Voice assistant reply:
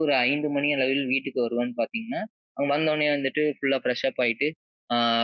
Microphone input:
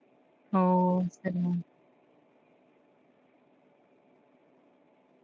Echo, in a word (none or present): none